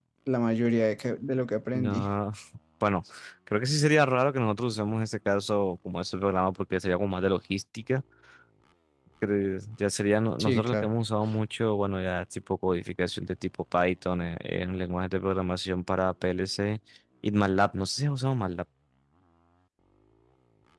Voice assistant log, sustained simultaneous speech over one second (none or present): none